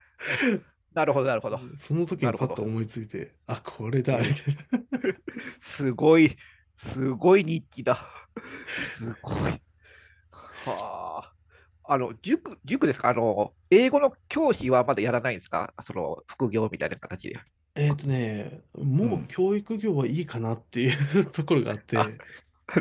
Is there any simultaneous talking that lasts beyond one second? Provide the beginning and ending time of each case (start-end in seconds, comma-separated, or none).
none